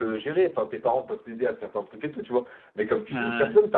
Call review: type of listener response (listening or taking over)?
listening